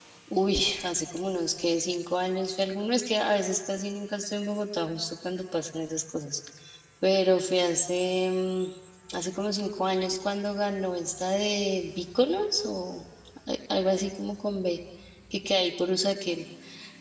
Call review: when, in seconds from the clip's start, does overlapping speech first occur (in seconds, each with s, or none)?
none